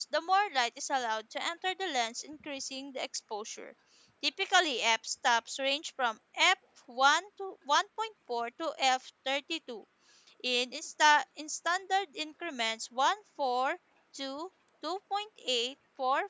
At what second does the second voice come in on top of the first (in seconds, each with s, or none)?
none